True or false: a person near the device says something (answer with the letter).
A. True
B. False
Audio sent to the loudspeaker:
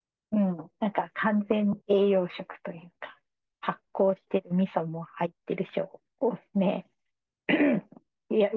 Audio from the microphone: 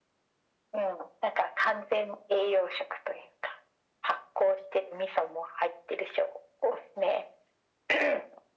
B